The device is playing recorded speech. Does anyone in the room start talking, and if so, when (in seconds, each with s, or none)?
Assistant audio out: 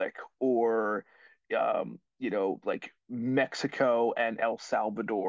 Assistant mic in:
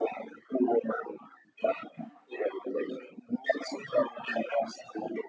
none